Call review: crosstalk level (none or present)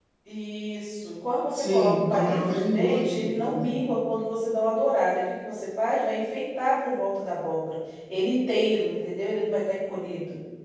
present